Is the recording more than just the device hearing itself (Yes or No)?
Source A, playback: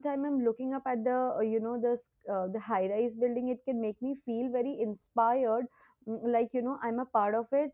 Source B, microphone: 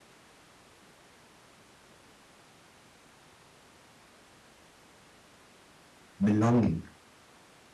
Yes